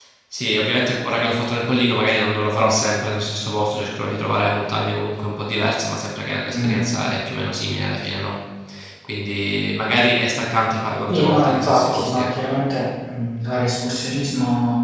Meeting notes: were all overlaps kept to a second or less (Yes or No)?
No